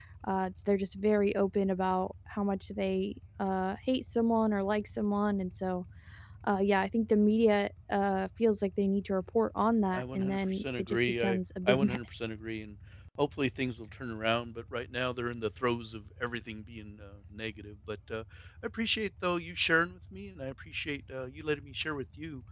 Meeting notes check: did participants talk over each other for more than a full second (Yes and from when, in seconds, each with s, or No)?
Yes, from 9.9 s